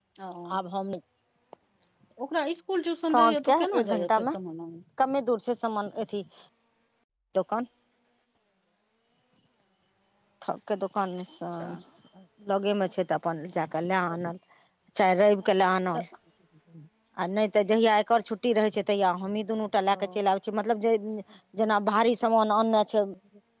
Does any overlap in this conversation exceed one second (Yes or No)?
Yes